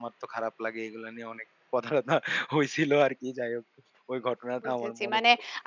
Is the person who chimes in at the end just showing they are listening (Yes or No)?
No